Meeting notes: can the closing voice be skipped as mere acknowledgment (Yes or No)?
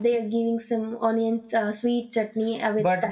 No